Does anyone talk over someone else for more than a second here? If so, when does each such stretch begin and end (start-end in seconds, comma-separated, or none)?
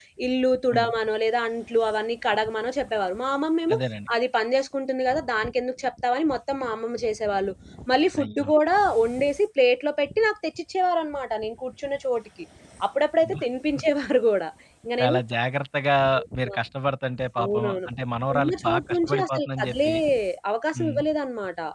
18.3-19.9